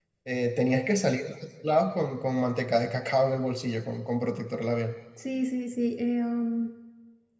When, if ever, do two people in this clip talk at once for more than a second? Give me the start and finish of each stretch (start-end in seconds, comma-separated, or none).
none